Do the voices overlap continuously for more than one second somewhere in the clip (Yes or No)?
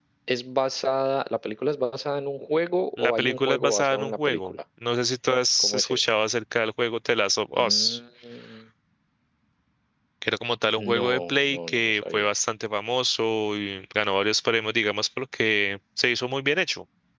Yes